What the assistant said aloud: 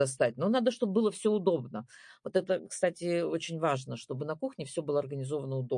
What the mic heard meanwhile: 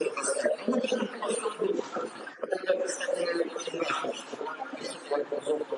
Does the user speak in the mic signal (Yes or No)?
No